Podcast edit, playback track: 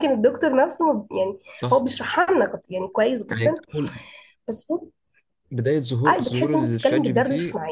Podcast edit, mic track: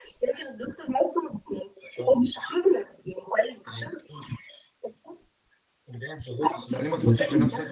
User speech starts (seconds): 6.7 s

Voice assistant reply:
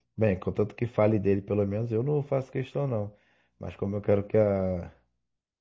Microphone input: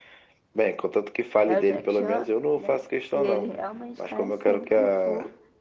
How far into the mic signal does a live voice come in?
1.4 s

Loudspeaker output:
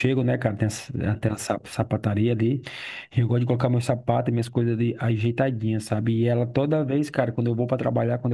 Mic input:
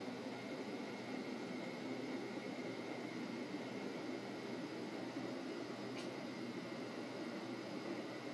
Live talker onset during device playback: none

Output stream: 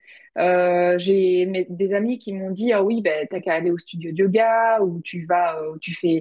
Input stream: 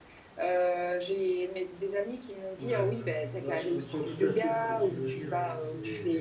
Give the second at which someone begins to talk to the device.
2.6 s

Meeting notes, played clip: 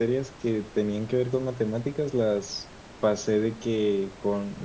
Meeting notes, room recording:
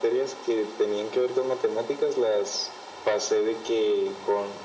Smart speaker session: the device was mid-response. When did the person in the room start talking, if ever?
none

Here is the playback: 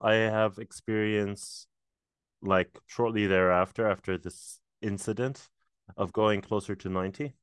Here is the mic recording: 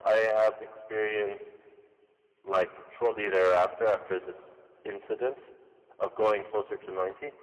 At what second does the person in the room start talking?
none

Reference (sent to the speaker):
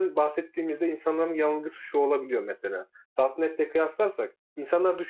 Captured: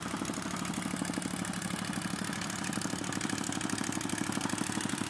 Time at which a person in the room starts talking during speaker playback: none

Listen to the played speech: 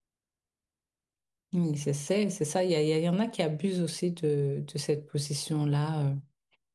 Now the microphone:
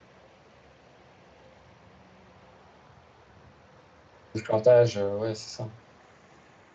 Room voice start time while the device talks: 4.3 s

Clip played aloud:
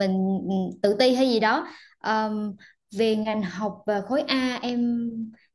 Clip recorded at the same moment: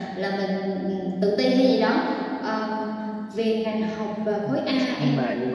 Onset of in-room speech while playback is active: 4.2 s

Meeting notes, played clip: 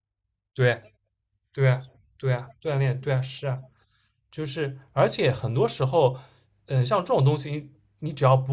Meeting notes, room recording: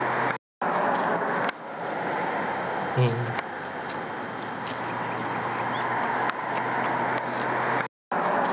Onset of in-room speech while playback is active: 3.0 s

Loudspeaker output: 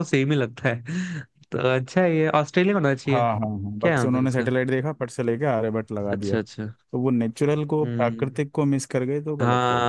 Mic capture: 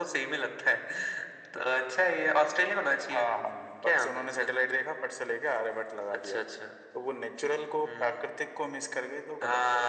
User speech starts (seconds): none

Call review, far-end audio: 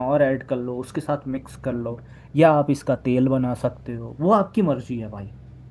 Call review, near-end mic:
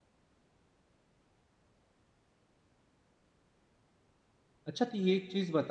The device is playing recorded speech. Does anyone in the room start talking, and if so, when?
4.7 s

